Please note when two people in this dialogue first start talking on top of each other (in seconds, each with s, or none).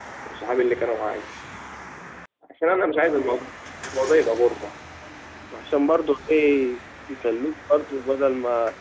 none